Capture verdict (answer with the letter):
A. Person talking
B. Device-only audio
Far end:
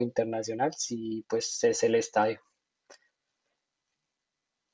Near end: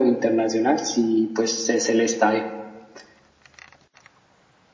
B